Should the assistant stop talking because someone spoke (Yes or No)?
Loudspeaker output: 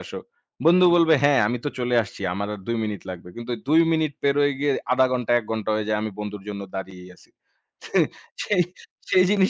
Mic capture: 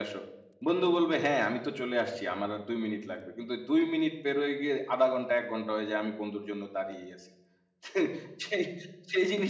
No